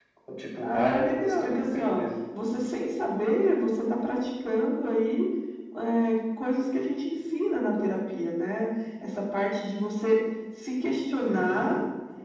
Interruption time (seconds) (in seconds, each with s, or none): 0.6 s